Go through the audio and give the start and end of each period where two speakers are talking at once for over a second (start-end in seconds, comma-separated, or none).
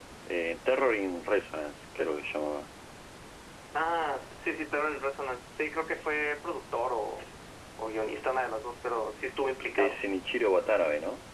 none